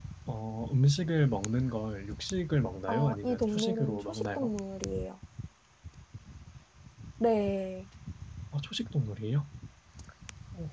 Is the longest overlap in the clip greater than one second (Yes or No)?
Yes